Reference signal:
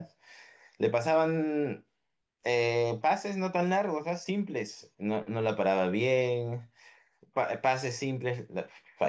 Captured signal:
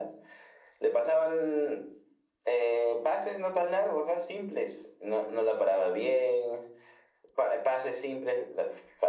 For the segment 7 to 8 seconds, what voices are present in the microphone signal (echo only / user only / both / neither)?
echo only